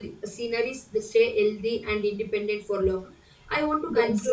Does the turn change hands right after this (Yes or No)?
No